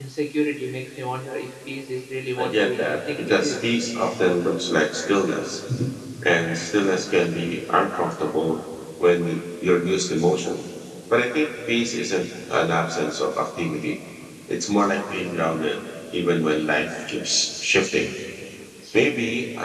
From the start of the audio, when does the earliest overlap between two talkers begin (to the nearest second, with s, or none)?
2 s